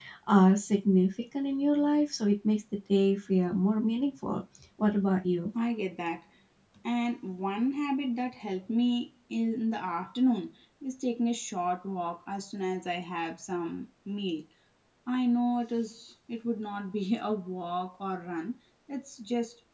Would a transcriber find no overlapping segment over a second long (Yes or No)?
Yes